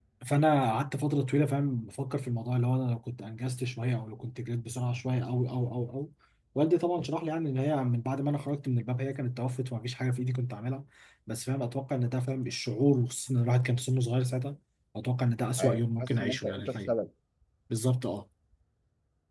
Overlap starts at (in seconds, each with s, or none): 15.6 s